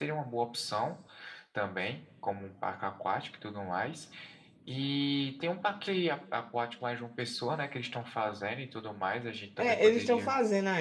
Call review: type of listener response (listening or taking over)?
taking over